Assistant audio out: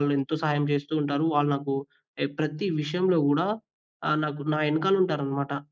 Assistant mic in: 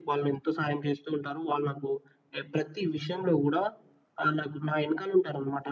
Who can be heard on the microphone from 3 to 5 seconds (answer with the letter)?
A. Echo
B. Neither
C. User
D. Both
A